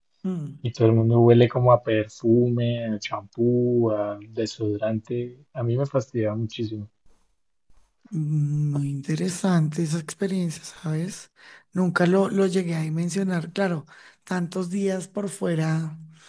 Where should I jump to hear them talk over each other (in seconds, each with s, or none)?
none